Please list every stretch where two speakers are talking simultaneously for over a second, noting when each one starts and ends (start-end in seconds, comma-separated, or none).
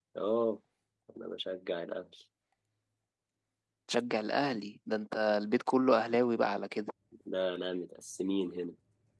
none